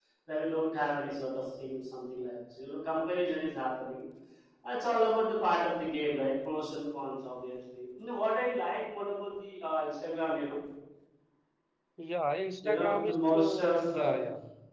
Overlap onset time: 13 s

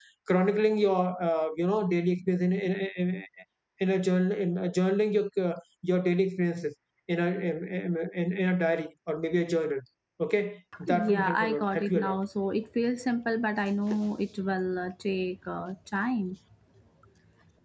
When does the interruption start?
11 s

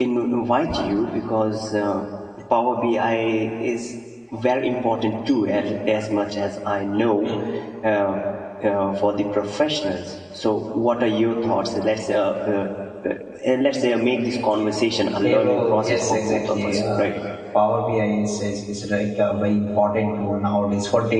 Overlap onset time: 15 s

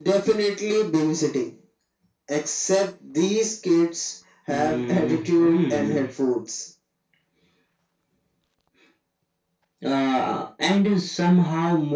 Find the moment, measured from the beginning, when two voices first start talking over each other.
4 s

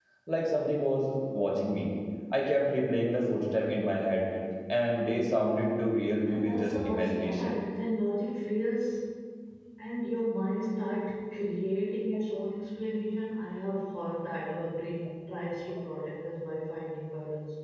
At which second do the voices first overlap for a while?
6 s

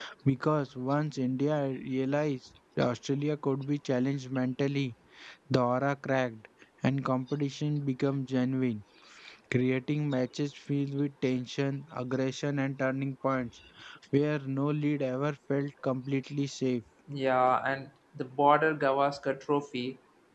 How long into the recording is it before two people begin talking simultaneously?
none

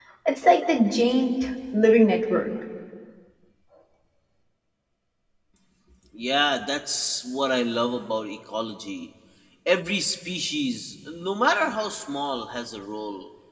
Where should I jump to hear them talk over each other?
none

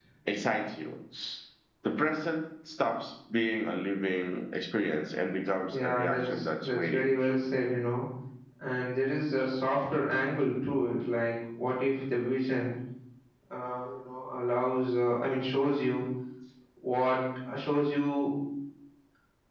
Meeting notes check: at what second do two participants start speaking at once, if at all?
6 s

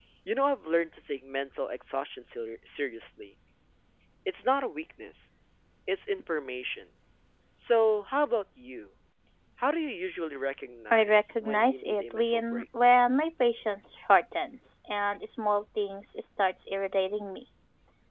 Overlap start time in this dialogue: 11 s

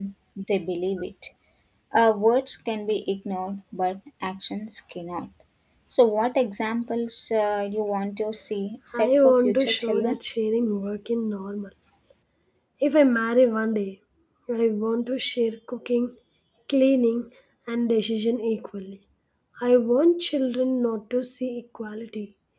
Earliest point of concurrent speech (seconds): 9 s

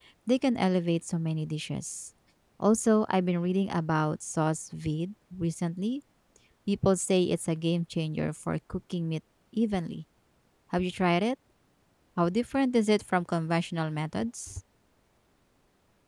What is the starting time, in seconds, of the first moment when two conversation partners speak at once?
none

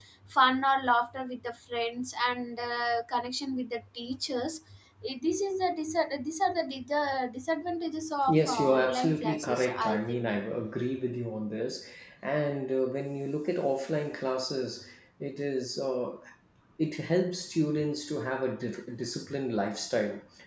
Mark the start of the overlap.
8 s

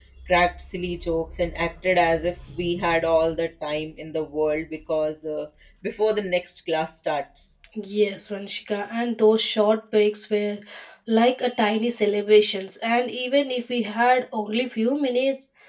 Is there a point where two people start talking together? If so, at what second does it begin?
none

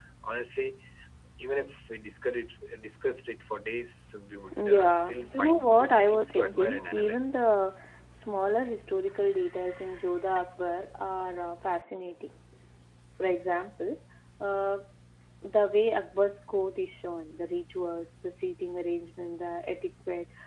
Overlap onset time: 4 s

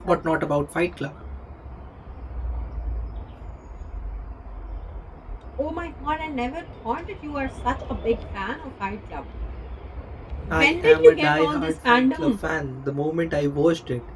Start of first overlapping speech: 11 s

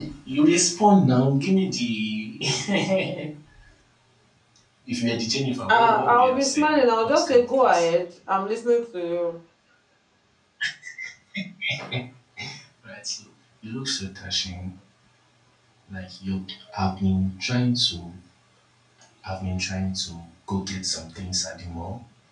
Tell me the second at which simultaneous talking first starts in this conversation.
6 s

